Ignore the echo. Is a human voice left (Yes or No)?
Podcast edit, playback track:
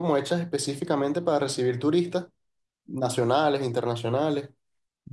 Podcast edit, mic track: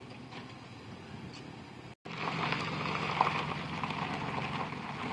No